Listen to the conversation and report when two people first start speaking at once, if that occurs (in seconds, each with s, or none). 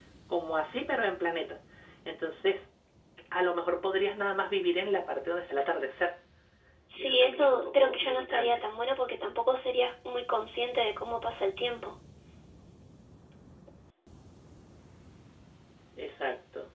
6.9 s